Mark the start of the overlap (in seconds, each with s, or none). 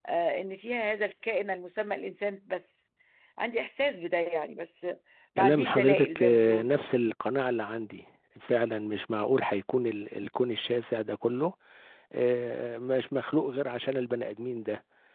5.4 s